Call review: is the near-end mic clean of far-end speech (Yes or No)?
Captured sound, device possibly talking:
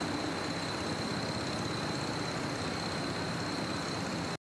Yes